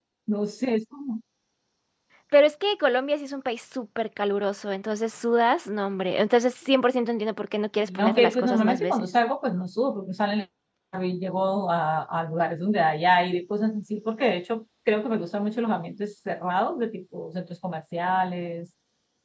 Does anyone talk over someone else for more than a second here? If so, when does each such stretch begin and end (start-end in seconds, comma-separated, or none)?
7.8-9.1